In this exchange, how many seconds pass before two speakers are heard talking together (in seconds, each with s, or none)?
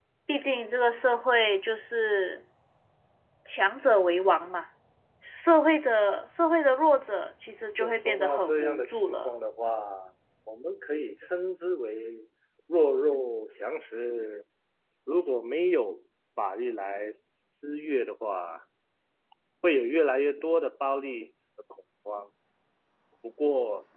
7.8 s